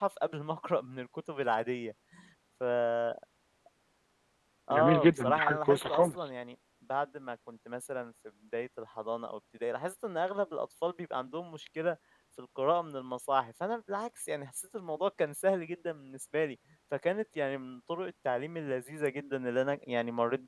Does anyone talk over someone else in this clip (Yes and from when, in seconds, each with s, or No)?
Yes, from 4.7 s